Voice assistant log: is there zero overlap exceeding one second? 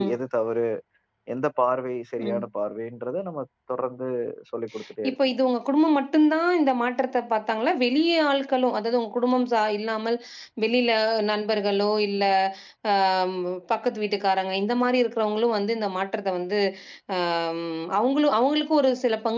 Yes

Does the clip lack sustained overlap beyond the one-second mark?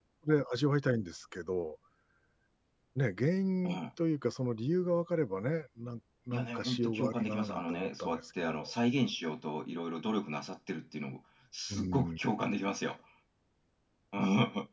No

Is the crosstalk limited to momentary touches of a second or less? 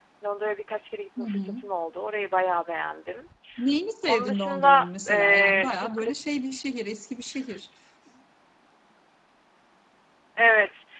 No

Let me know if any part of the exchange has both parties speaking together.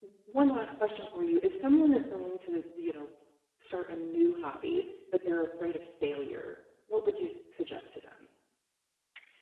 No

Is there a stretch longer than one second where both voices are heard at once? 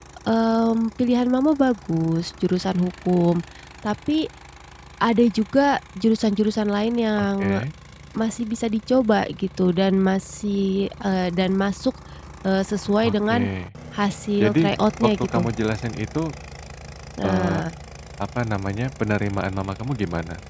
No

